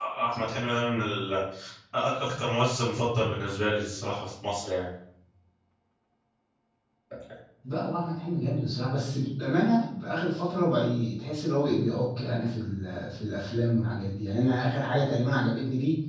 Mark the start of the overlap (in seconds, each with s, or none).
none